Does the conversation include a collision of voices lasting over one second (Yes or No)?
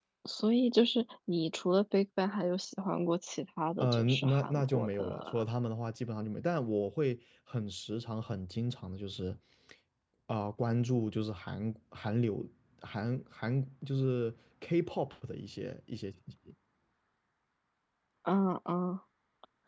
Yes